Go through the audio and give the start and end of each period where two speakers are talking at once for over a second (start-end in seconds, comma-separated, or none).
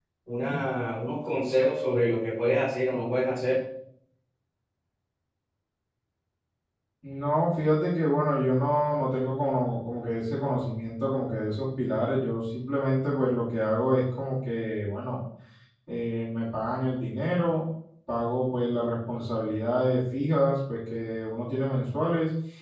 none